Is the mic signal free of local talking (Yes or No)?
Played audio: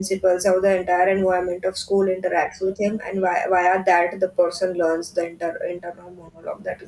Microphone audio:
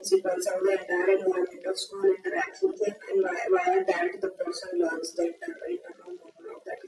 Yes